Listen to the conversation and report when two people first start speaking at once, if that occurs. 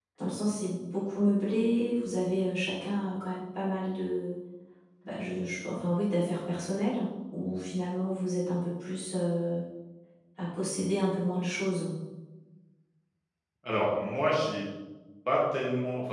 none

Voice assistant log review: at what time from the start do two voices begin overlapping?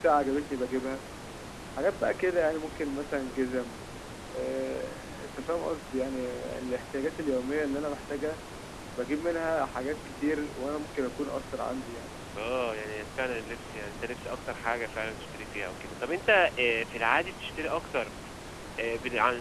none

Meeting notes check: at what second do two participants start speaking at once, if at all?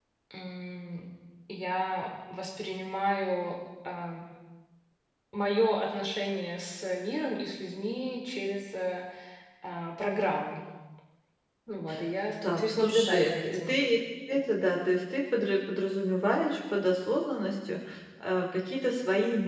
12.5 s

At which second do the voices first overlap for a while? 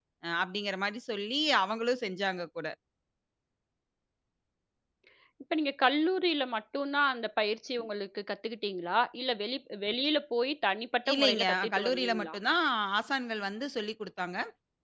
11.1 s

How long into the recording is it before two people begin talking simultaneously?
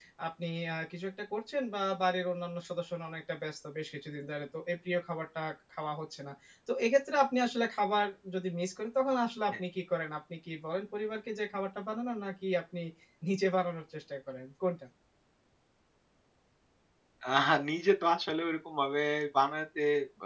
none

